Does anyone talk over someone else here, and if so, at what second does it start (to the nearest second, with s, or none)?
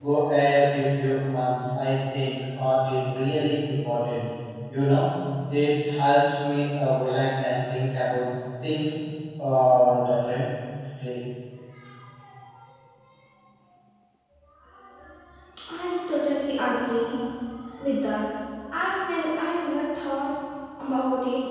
none